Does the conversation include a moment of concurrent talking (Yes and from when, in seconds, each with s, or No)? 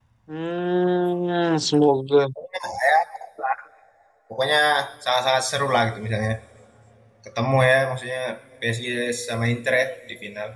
No